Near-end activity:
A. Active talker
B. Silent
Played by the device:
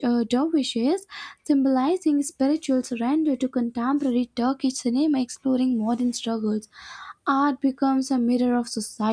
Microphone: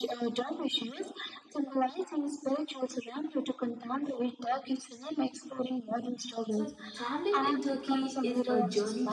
A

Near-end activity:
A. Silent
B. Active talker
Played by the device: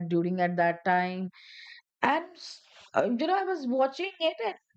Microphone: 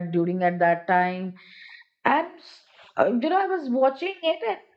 A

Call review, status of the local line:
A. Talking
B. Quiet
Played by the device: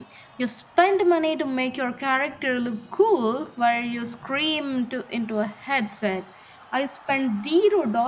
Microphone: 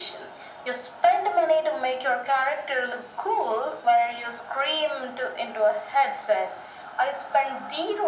B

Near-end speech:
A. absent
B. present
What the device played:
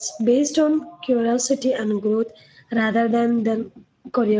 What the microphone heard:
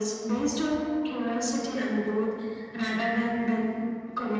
A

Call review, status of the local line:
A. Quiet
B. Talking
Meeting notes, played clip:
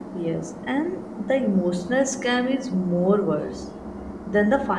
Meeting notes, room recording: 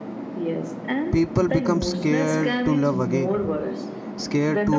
B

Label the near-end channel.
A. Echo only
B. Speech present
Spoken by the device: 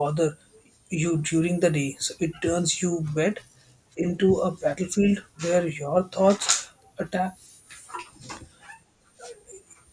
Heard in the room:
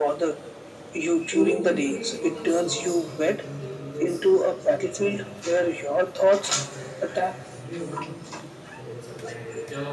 B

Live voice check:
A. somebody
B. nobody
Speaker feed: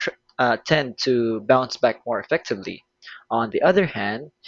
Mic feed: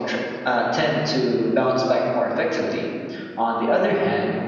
B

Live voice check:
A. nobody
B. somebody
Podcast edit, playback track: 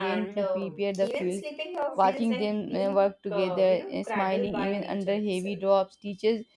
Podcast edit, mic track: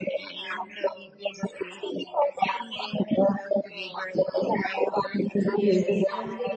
B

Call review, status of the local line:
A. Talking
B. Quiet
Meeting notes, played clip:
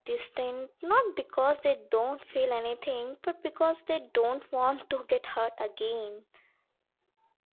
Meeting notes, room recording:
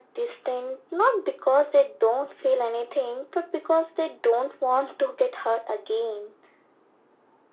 B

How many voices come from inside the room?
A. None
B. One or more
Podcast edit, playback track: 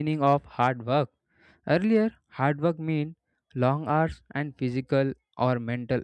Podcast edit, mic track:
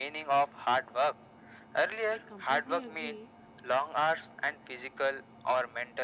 B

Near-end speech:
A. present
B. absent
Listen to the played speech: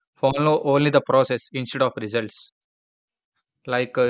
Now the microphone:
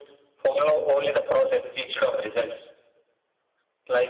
B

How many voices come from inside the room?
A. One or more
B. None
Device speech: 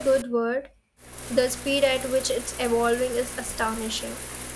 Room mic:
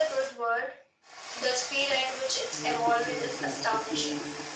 A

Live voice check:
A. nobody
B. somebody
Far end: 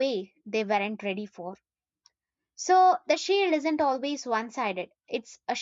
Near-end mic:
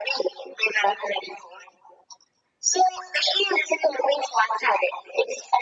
A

